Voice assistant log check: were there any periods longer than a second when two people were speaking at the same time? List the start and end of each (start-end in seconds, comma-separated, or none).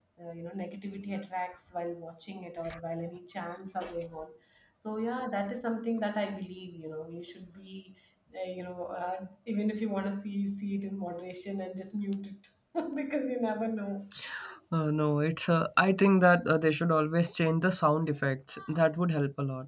none